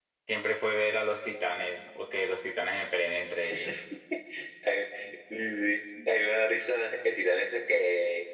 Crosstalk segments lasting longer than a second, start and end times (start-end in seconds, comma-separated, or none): none